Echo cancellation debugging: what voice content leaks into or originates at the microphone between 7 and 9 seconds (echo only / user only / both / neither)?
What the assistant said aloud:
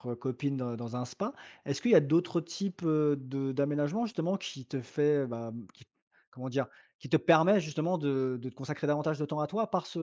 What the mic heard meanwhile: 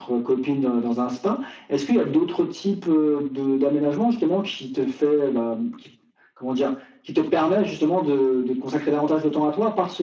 echo only